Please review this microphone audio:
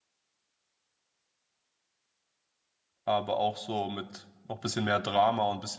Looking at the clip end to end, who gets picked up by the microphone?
user only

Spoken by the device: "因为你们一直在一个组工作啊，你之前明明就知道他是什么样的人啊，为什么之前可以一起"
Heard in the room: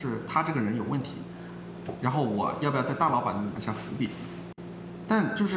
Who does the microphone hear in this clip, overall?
user only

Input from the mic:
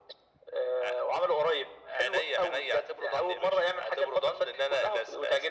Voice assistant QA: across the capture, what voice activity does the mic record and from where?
echo only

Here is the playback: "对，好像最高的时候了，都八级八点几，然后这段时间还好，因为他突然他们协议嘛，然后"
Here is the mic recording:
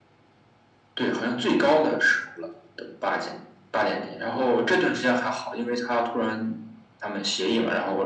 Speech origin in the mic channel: echo only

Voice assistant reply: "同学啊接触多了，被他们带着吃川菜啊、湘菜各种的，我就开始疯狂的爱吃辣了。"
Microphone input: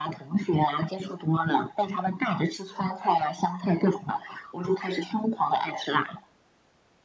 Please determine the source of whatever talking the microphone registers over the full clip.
echo only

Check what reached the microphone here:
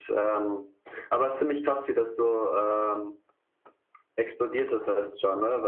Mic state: echo only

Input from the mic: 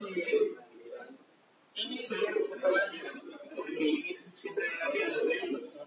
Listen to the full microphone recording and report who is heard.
echo only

